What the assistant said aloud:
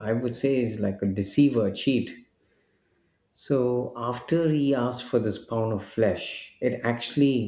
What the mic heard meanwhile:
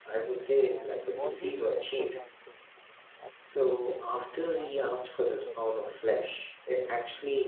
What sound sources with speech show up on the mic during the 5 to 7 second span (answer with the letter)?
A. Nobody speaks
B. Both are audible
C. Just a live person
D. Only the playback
B